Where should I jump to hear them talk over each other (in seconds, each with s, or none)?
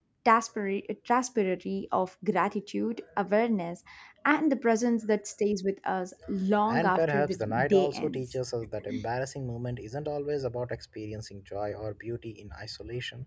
6.7 s